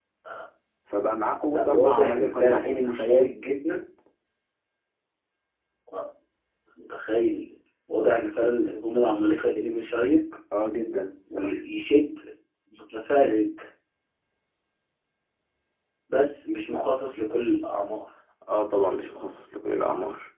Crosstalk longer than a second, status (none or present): present